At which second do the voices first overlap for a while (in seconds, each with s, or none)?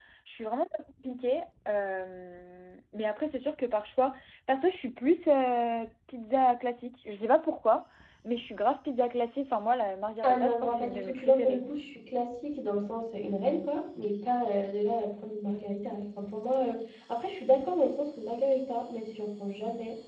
10.2 s